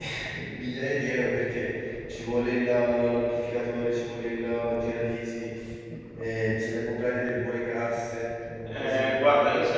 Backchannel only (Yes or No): No